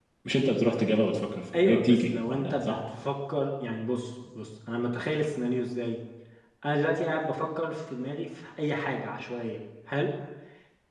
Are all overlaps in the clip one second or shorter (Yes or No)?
No